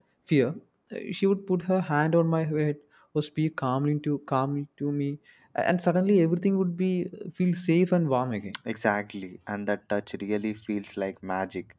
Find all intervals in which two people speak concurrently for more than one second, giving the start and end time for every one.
none

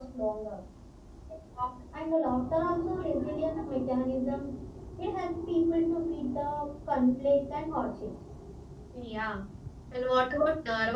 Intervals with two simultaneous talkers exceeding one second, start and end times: none

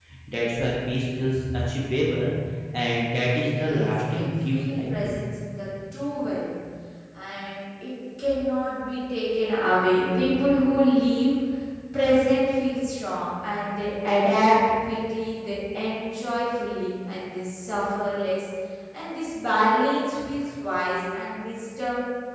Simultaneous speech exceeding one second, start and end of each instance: 3.6-5.2

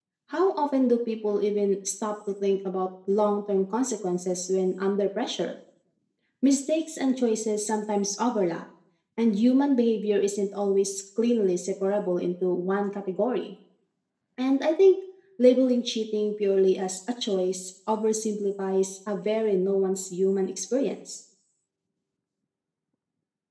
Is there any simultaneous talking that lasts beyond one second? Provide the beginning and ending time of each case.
none

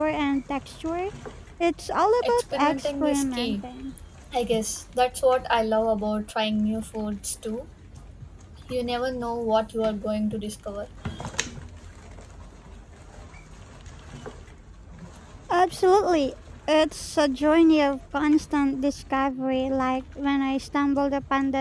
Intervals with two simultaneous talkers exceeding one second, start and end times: 2.3-3.6

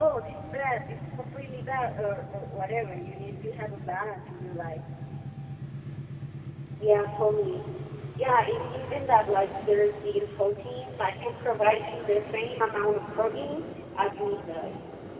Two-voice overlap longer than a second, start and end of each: none

